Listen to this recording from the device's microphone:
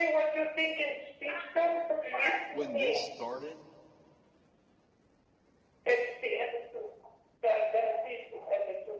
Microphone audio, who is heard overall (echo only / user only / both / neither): both